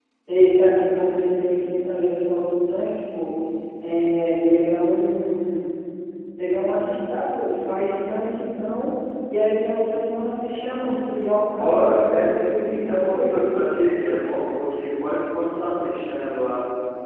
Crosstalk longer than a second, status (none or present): present